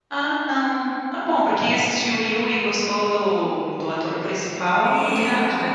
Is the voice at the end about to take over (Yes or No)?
Yes